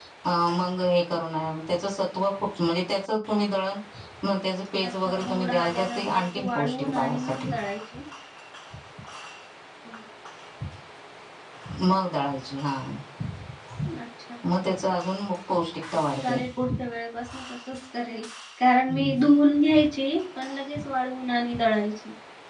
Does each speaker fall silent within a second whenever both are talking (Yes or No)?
No